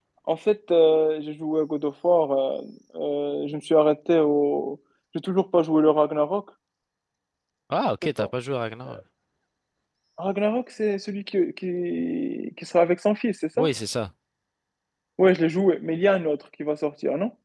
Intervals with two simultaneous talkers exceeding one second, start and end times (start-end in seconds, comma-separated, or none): none